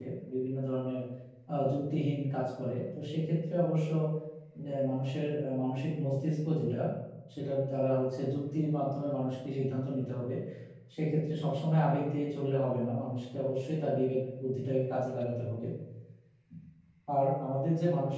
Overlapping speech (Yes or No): No